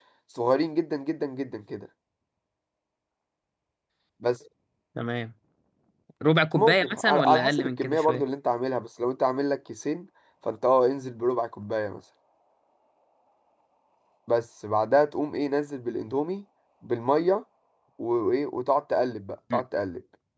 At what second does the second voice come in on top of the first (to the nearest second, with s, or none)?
7 s